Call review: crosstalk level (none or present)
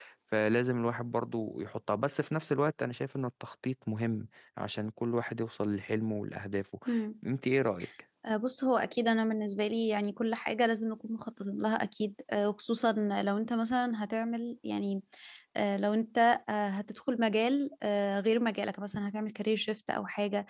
none